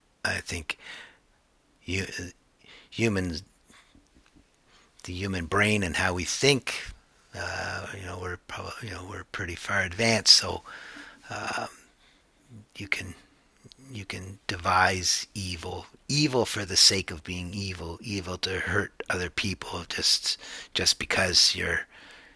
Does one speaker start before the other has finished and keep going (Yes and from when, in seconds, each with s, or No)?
No